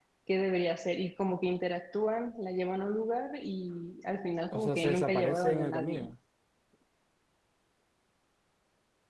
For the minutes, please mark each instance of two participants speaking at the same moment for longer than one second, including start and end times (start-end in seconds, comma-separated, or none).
4.5-6.1